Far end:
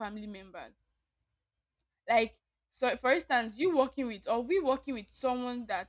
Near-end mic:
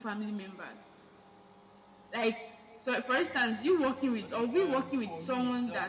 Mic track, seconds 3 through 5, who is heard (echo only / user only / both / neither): both